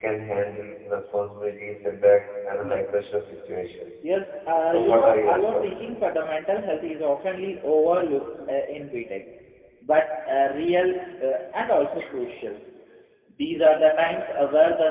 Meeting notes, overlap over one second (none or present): present